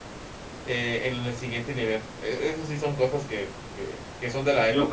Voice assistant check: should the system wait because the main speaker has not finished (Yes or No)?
No